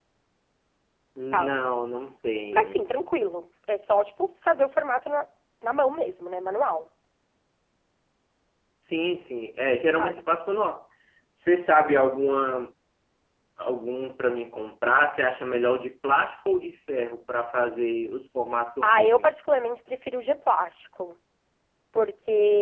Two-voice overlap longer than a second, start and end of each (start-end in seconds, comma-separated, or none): none